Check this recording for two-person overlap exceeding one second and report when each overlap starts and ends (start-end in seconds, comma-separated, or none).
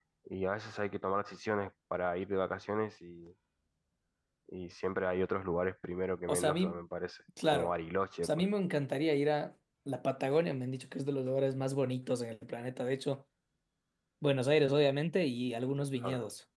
none